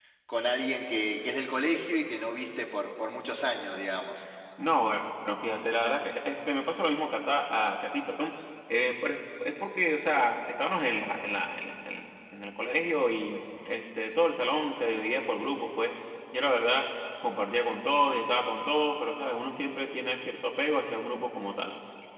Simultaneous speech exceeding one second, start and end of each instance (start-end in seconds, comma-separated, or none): none